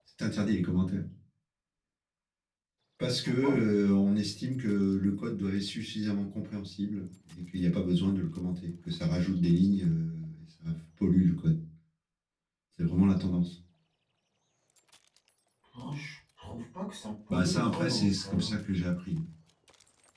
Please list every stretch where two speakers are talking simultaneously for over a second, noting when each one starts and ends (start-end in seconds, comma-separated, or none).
17.3-18.6